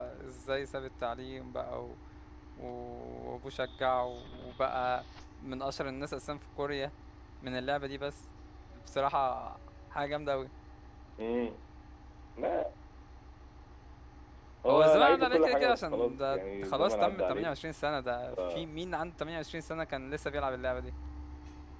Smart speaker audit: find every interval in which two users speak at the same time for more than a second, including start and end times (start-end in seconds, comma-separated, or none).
14.7-17.5